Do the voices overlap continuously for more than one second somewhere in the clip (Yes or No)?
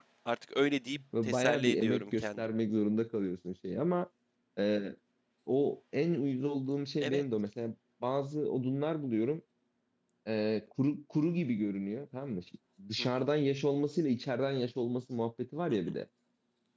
Yes